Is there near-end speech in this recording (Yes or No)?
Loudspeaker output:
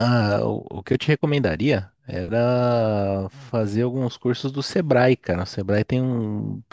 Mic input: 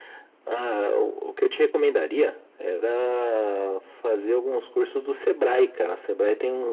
No